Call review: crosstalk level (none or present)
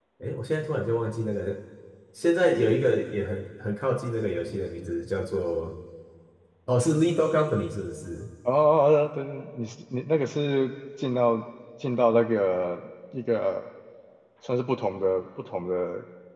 none